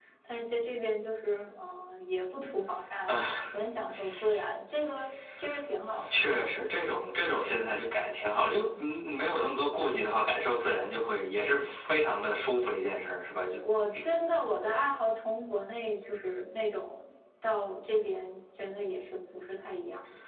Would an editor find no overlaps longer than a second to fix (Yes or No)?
Yes